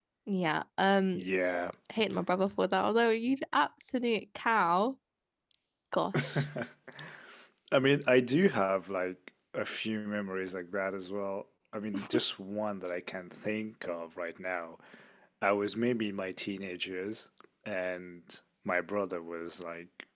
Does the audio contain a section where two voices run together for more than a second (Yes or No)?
No